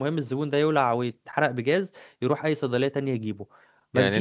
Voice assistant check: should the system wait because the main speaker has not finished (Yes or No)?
No